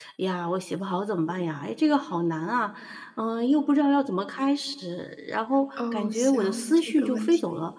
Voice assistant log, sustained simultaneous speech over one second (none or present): present